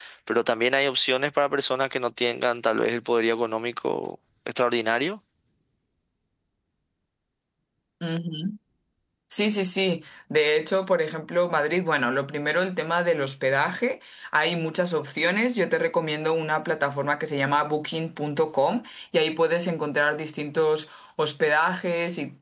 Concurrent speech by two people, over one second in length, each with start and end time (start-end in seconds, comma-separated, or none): none